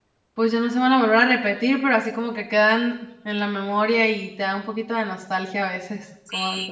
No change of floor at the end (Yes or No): No